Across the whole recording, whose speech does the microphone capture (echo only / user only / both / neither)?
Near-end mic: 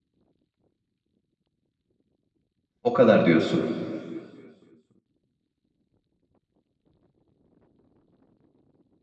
user only